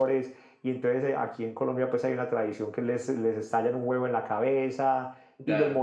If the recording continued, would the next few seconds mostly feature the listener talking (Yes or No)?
No